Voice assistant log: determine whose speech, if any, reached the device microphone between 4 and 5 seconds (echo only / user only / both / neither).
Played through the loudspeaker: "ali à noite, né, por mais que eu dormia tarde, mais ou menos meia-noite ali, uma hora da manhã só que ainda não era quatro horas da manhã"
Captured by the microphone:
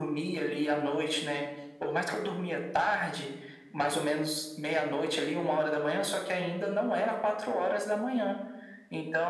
echo only